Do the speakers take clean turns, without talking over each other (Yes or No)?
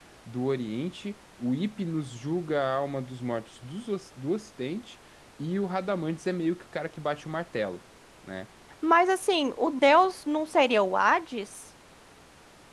Yes